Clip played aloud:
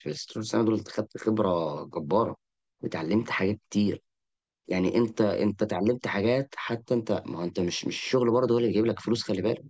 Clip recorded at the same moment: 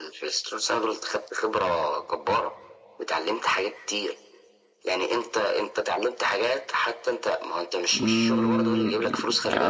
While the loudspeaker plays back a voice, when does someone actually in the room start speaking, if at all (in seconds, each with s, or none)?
7.9 s